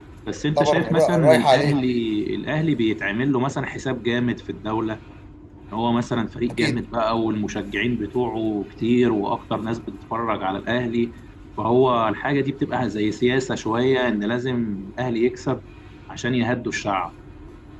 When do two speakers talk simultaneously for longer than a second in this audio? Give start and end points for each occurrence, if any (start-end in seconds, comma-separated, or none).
0.6-1.8